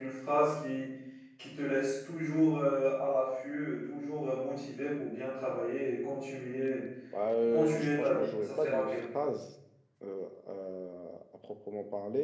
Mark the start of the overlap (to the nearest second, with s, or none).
8 s